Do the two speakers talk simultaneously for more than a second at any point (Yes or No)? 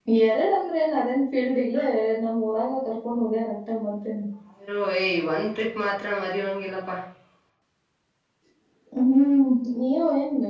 No